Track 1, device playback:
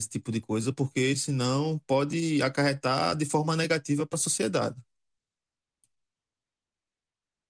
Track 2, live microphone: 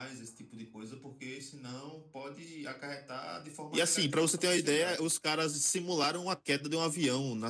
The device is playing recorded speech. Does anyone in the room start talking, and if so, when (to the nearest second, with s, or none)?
4 s